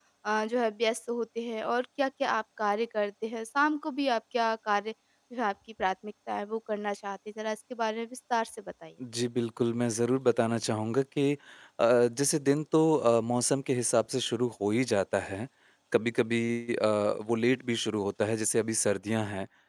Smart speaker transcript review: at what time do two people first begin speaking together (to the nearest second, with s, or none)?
none